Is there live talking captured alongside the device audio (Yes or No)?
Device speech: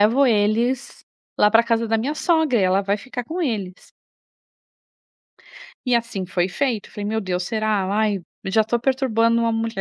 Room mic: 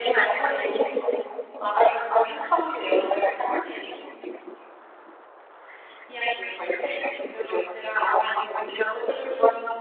Yes